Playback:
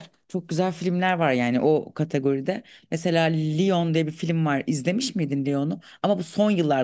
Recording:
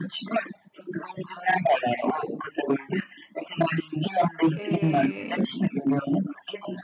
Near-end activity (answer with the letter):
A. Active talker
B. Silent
A